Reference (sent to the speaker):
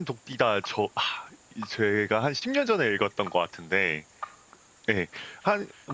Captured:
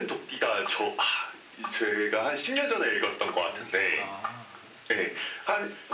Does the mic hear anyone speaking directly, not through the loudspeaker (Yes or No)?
Yes